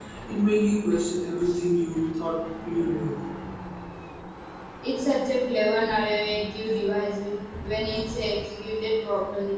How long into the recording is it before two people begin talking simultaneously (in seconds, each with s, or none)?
none